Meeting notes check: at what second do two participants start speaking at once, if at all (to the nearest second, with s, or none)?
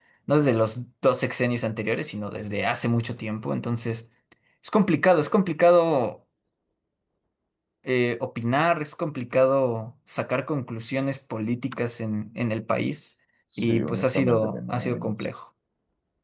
14 s